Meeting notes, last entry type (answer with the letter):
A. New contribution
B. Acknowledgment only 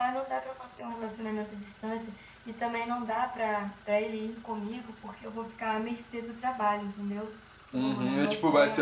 A